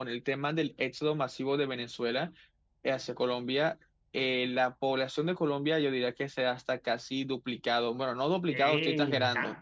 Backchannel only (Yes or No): No